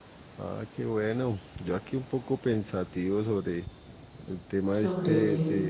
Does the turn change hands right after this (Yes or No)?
No